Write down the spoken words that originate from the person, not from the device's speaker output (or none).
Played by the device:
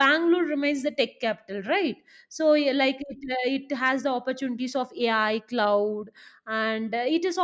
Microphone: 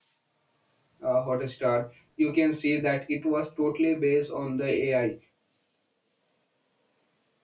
uh, Hotstar, you can see that it was totally based on the AI.